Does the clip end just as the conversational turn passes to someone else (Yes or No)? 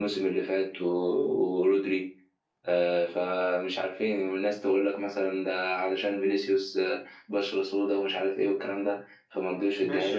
Yes